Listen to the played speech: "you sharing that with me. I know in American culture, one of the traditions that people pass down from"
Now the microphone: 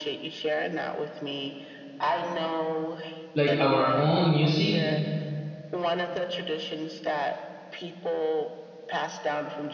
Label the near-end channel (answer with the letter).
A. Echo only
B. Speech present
B